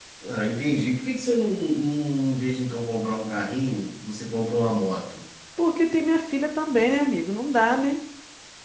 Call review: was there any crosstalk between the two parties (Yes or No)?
No